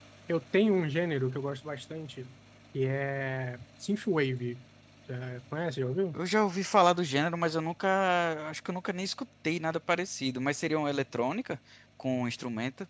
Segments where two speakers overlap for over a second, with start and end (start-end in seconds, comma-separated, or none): none